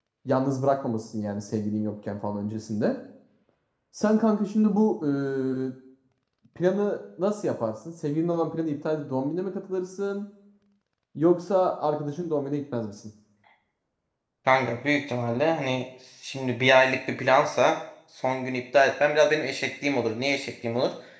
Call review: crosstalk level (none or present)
none